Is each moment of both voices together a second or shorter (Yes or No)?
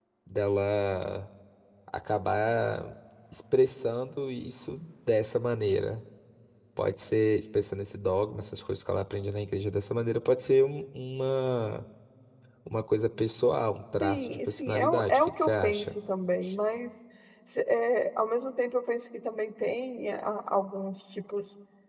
No